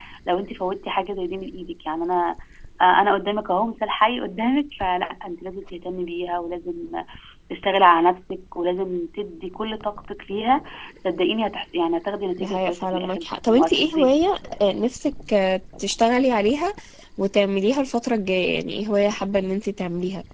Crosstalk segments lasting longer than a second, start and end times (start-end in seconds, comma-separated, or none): 12.4-14.2